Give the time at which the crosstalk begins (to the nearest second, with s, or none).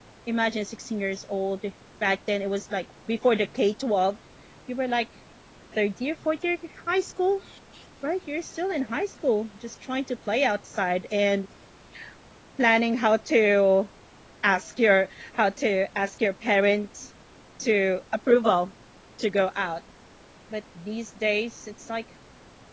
none